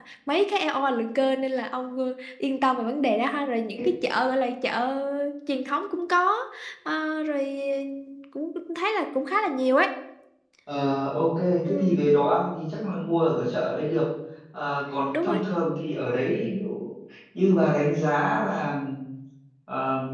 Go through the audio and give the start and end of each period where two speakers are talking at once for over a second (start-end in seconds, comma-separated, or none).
none